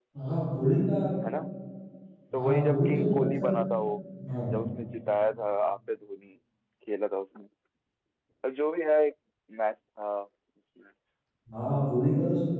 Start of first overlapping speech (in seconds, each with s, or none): 2.3 s